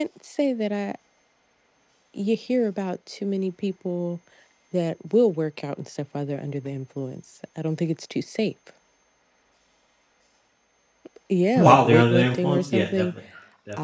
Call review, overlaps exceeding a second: present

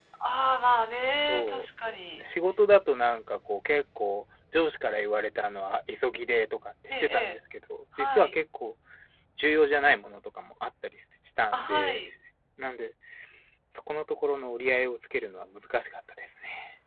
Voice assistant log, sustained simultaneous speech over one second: none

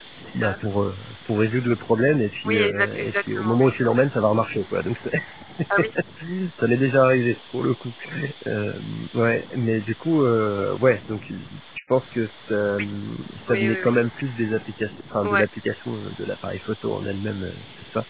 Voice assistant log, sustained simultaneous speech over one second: present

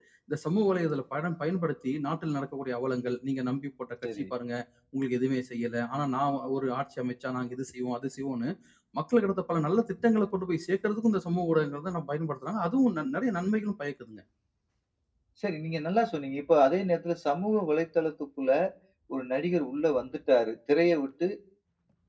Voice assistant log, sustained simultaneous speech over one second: none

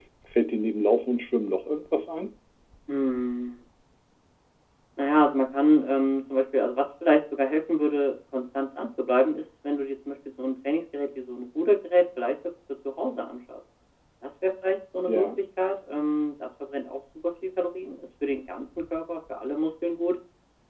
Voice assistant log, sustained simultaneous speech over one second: none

